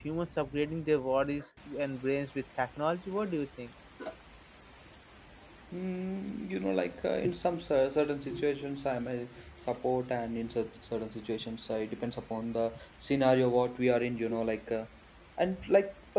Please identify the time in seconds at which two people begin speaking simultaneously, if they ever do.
none

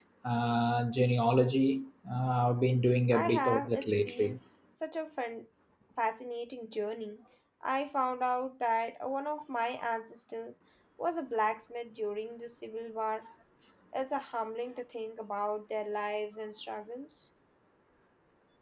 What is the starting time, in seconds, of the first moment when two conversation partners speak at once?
3.1 s

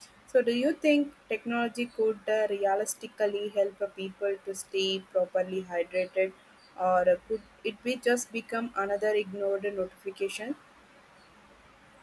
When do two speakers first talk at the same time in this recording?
none

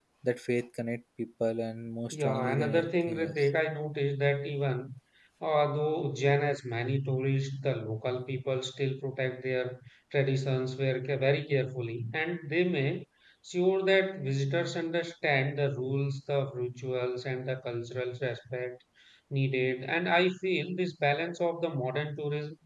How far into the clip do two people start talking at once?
2.1 s

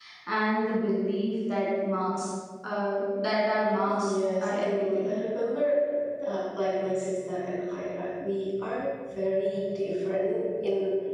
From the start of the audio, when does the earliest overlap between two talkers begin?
3.8 s

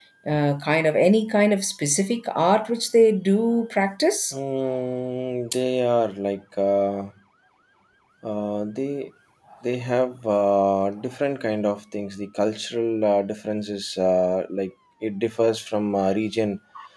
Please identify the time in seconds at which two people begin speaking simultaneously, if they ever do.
none

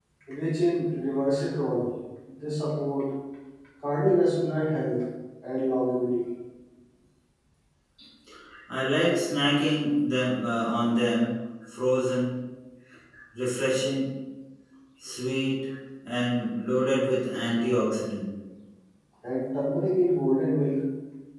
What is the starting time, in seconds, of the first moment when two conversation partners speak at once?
none

